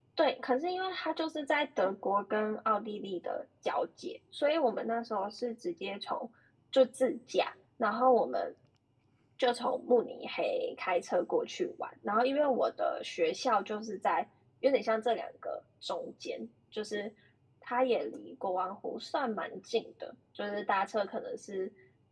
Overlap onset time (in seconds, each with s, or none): none